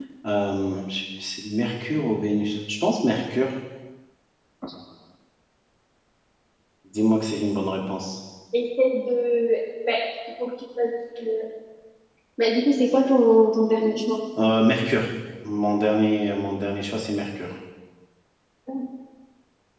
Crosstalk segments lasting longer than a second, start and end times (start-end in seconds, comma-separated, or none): none